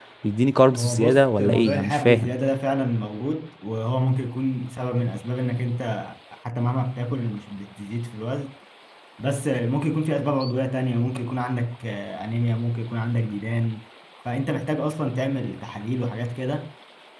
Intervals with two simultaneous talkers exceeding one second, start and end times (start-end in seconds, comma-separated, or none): 0.7-2.3